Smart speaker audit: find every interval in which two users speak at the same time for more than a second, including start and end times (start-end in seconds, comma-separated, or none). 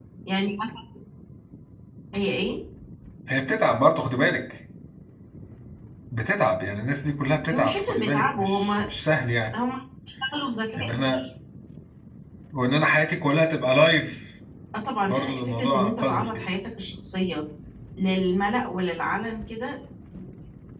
7.5-8.7, 15.1-16.5